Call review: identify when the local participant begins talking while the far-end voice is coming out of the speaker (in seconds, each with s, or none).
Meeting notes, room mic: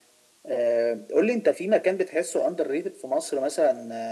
none